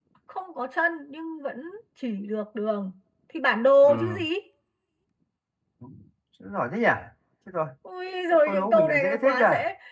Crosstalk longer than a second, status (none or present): present